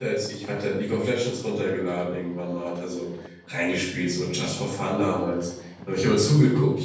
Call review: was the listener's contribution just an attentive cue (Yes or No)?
Yes